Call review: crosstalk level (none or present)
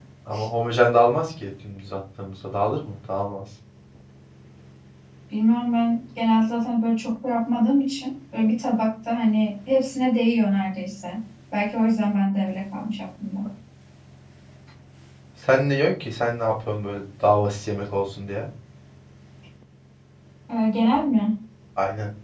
none